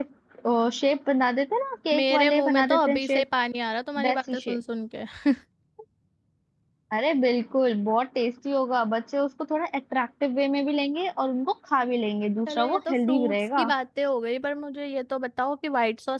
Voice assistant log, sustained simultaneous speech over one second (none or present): present